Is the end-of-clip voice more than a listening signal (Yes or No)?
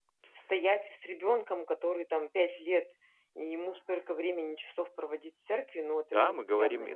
Yes